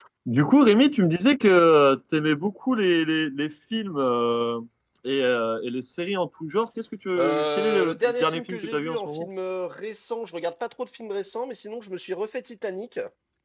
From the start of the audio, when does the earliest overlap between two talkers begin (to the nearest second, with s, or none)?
7 s